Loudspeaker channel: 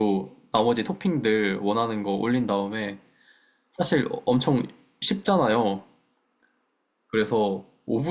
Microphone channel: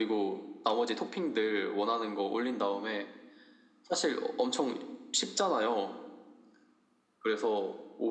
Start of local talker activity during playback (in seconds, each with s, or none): none